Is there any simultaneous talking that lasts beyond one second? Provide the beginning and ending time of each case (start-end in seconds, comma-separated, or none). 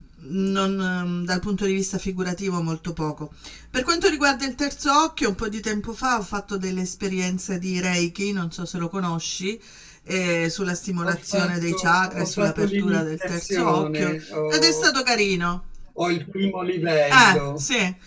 11.0-15.0